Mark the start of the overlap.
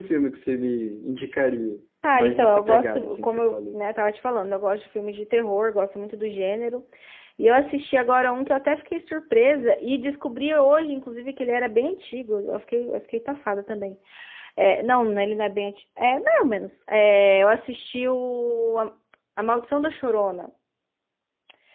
2.0 s

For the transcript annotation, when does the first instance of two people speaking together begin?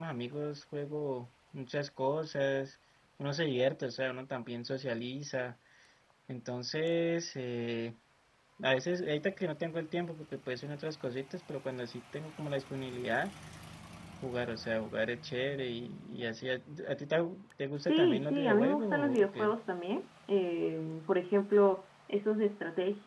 17.8 s

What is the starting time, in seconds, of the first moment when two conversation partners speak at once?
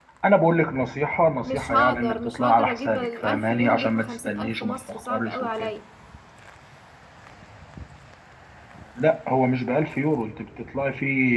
1.4 s

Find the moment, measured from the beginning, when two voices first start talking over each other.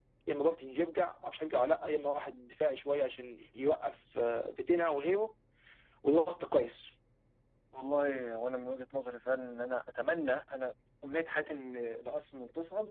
none

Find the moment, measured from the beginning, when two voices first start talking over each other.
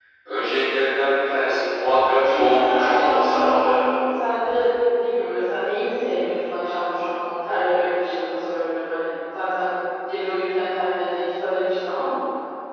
2.2 s

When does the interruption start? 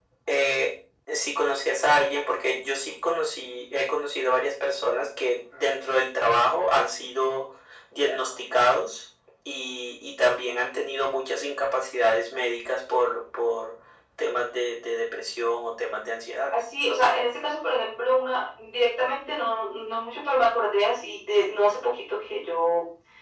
none

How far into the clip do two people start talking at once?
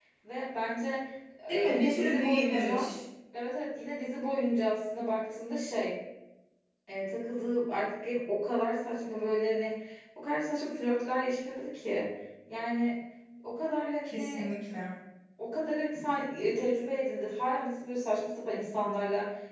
1.5 s

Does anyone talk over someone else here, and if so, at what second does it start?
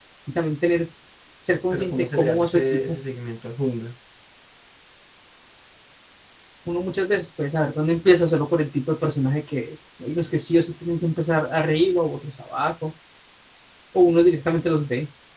1.7 s

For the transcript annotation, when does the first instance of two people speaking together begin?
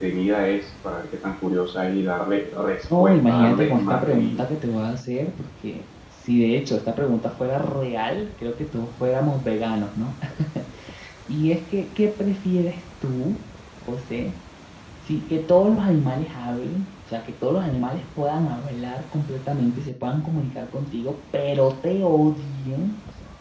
2.9 s

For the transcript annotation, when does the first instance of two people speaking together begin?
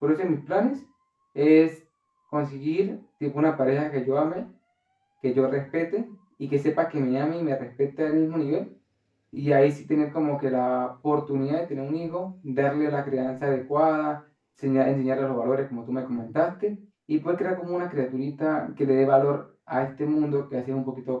none

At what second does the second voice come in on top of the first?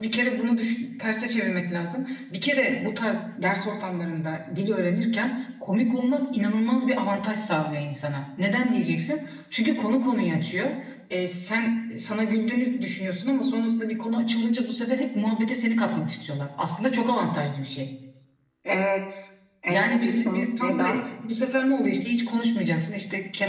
19.7 s

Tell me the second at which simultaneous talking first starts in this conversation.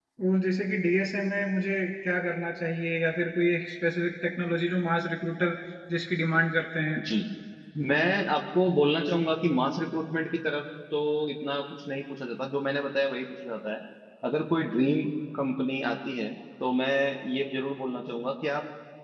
none

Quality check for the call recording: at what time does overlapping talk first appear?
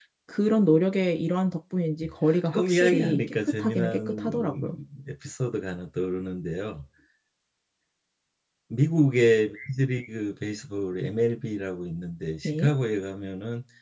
2.5 s

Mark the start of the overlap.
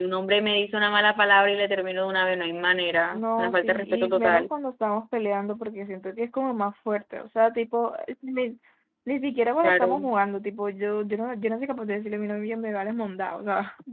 3.1 s

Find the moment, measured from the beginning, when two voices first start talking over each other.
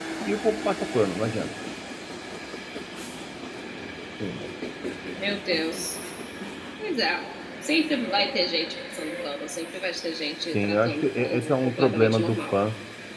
10.5 s

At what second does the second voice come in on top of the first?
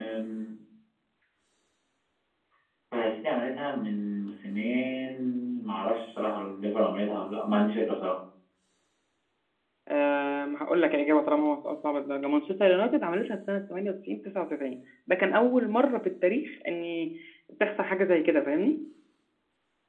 none

